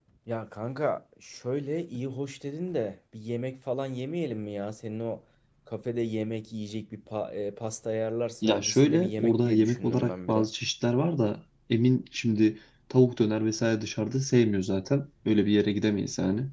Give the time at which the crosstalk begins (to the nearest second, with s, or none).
8 s